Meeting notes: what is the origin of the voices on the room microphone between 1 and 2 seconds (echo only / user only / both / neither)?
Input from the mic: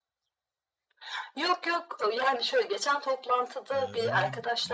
echo only